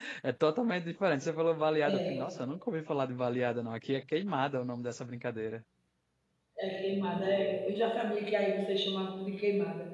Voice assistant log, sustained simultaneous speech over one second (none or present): none